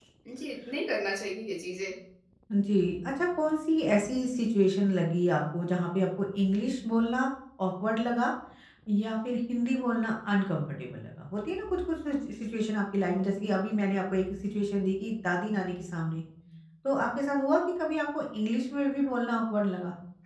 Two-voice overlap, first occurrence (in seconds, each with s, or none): none